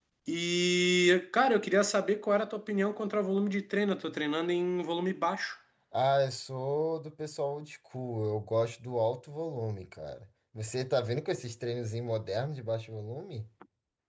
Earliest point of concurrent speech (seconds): none

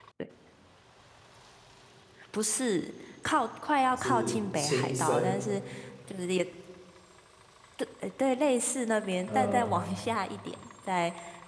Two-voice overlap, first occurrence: 3.9 s

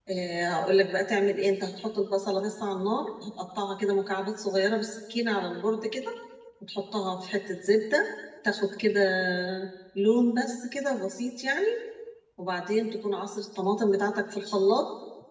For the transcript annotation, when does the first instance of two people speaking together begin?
none

